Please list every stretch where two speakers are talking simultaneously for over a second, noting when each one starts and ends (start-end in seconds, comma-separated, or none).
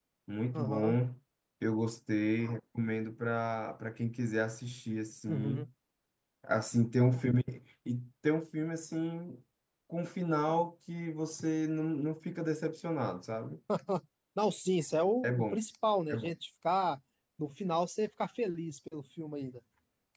none